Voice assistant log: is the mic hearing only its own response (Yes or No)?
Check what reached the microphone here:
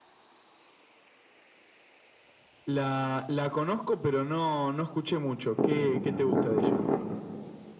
No